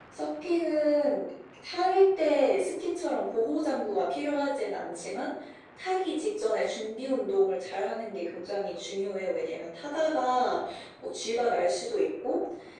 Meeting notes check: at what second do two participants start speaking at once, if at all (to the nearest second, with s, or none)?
none